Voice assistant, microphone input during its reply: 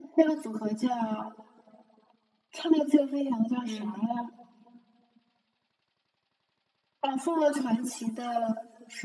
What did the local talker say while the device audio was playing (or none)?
嗯，